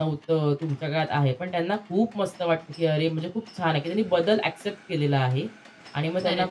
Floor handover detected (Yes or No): No